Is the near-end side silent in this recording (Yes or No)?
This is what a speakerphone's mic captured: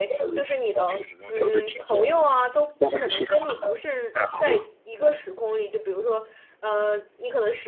No